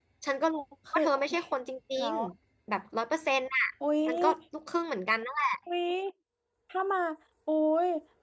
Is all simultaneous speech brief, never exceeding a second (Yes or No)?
Yes